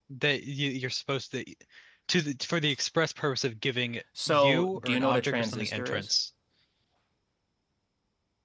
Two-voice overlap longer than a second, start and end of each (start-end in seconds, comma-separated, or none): 4.3-6.1